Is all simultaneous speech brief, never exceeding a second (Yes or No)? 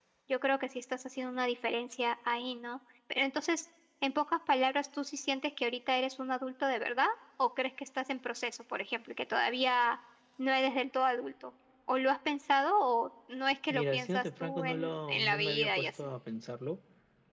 No